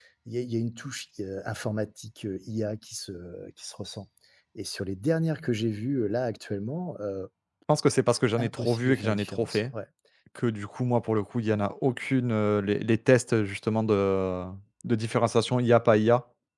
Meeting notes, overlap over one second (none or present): present